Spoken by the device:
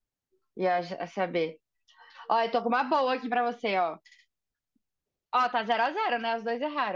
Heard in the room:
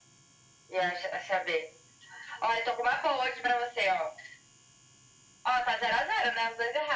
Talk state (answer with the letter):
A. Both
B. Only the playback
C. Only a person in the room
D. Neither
B